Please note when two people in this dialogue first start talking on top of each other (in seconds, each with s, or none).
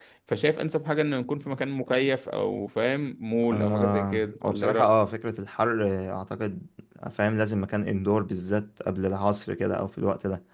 3.5 s